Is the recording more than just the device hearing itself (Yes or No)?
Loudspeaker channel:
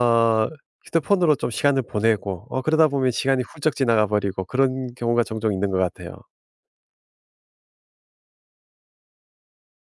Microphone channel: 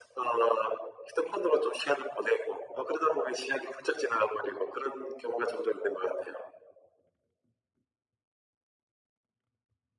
No